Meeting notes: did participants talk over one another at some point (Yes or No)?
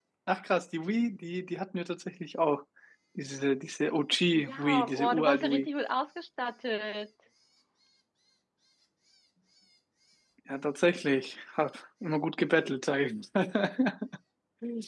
Yes